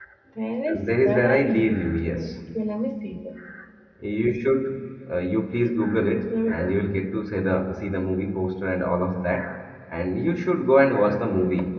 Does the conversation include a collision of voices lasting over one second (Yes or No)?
Yes